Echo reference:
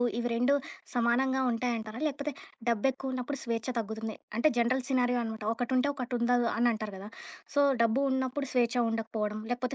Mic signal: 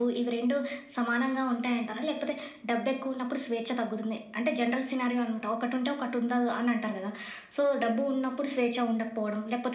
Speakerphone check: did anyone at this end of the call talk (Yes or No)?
No